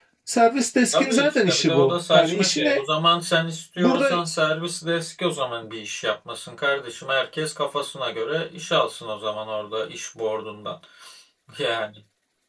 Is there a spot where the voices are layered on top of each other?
Yes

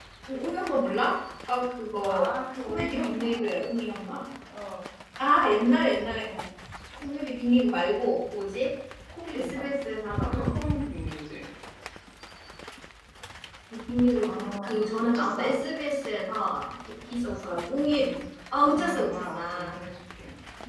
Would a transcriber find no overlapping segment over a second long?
No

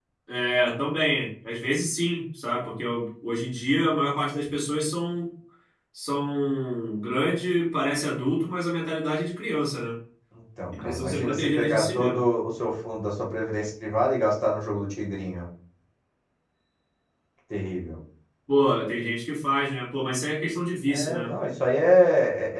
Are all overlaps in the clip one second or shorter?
No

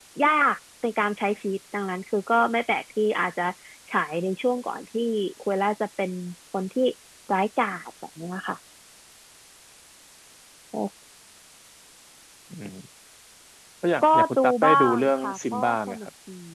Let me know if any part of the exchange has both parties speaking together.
Yes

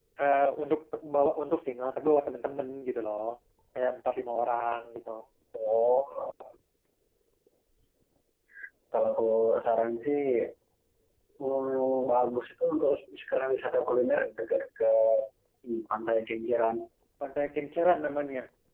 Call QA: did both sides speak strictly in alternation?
Yes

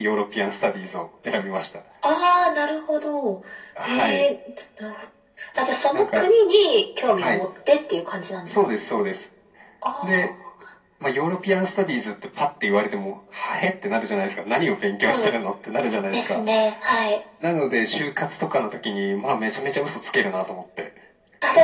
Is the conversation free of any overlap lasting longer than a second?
Yes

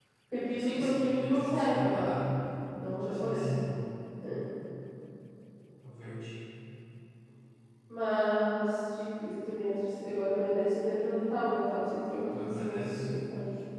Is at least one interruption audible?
Yes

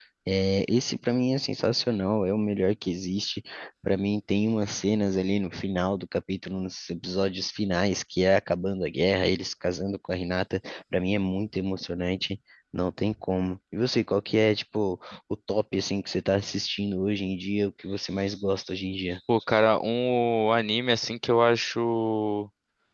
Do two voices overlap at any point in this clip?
No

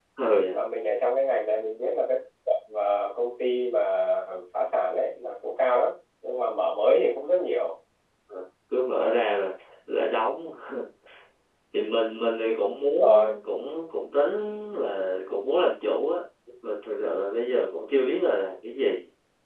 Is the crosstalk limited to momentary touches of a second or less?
Yes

